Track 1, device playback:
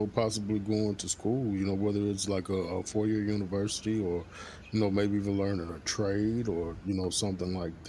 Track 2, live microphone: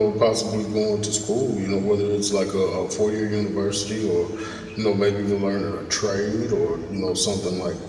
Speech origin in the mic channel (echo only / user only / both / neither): echo only